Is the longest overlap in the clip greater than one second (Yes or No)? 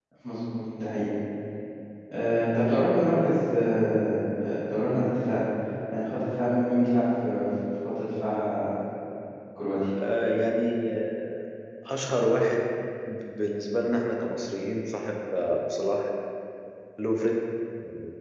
No